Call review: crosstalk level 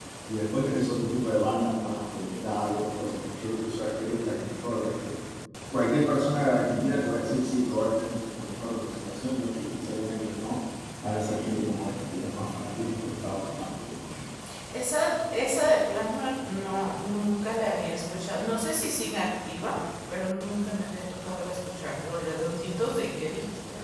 none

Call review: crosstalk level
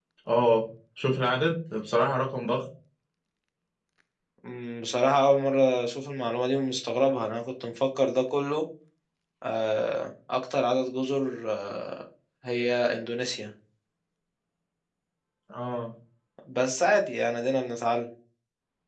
none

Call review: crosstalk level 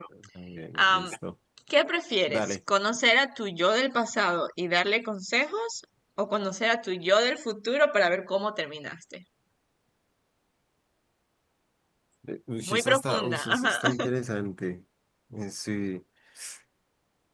present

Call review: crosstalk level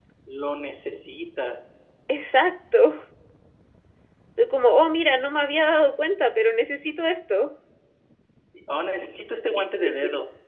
none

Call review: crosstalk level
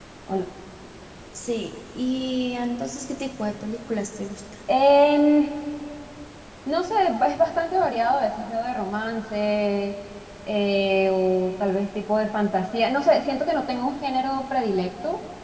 none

